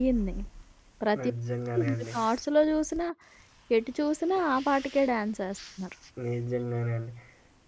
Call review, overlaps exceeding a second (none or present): none